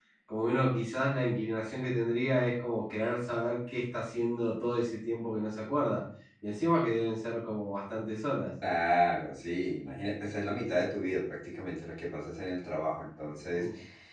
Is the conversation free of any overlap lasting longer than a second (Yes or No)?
Yes